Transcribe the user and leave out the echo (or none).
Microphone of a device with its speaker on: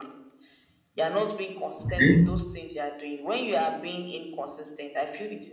okay